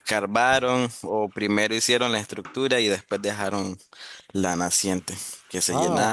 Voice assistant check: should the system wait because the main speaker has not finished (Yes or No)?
No